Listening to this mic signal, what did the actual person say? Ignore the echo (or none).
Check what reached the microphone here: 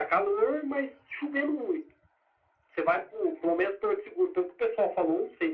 none